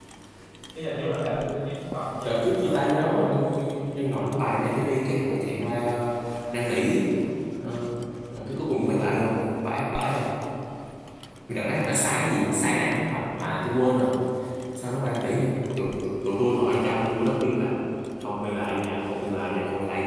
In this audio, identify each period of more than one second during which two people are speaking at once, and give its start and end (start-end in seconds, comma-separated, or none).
2.2-3.4